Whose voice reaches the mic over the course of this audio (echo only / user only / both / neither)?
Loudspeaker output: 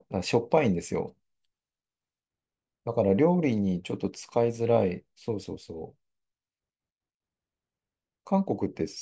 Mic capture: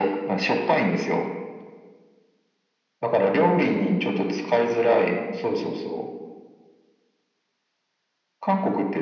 echo only